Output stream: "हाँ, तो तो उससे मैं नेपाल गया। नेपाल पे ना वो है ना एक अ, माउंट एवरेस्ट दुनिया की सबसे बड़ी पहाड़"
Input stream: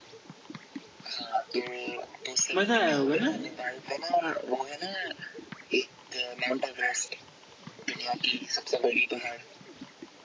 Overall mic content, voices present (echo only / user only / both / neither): both